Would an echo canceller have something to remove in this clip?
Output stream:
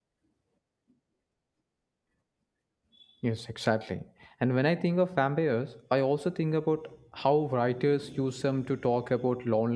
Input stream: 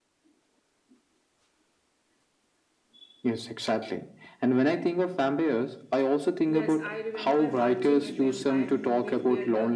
Yes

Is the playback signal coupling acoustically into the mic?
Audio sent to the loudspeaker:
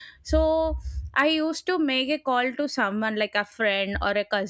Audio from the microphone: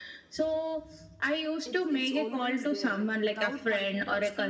Yes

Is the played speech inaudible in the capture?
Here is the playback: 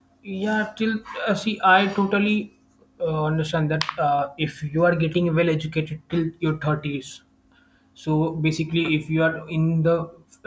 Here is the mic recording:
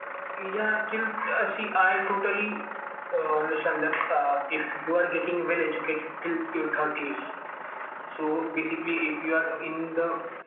No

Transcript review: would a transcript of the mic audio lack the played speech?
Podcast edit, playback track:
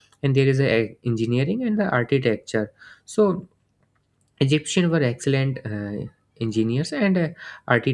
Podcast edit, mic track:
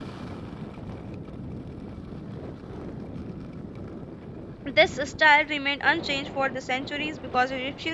Yes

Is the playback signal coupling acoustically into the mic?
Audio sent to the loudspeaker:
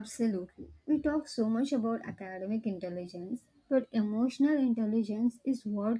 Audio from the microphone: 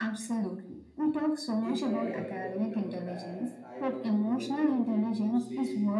Yes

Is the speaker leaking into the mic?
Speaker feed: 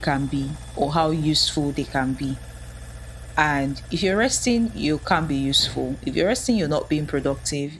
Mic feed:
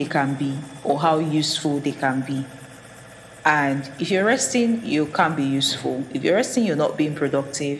Yes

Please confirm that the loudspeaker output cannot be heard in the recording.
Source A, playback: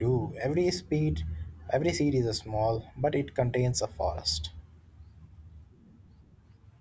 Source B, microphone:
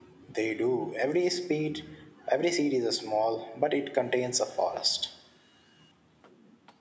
No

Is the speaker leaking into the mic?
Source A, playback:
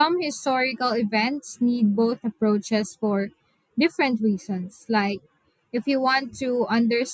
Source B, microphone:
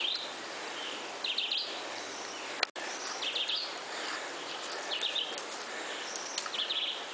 No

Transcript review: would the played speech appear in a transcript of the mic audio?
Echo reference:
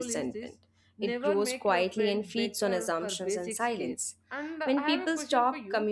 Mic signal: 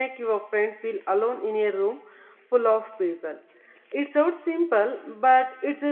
No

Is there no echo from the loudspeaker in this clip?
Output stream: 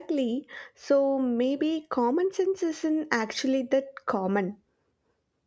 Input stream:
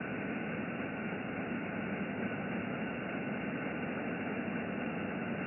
Yes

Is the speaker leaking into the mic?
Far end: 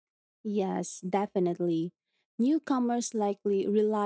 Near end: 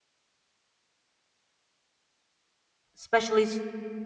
No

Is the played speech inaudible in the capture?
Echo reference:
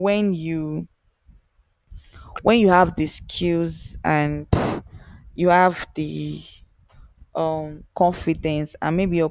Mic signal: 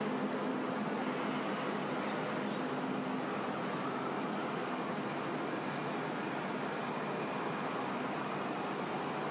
Yes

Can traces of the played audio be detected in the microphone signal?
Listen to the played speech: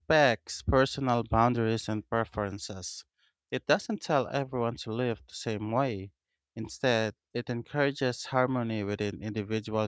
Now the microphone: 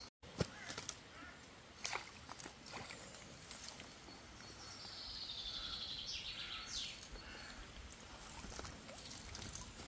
No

